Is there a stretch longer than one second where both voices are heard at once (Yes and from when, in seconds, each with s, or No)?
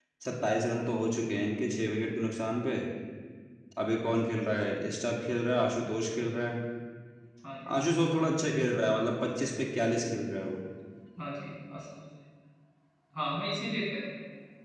No